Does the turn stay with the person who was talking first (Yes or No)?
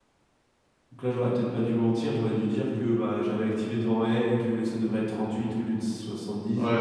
No